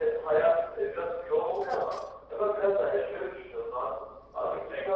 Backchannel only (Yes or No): Yes